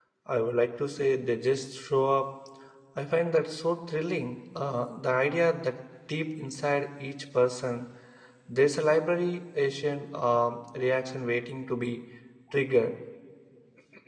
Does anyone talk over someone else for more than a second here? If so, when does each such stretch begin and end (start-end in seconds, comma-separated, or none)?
none